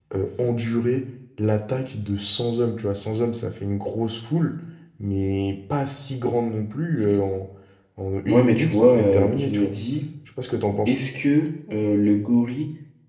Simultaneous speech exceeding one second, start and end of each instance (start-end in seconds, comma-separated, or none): 8.3-9.8